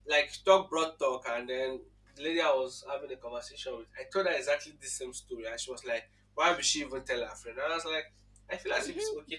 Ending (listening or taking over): listening